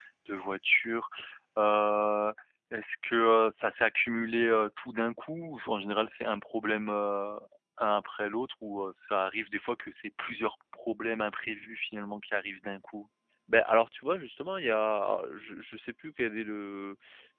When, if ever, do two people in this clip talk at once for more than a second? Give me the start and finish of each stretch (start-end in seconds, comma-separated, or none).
none